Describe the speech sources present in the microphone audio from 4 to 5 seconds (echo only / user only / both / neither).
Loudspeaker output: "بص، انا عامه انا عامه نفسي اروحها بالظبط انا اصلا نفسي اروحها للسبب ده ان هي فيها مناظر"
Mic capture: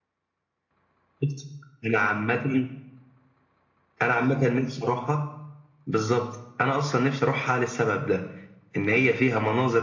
echo only